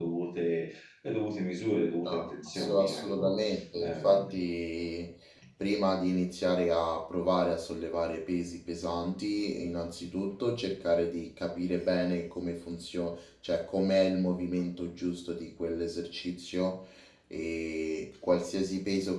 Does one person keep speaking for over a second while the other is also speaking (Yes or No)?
Yes